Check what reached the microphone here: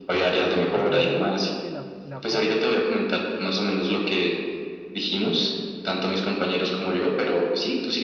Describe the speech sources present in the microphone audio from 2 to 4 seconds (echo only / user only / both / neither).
both